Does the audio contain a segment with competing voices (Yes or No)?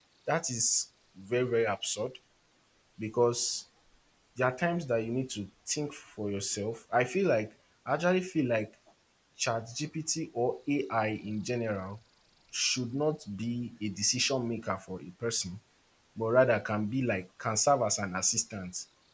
No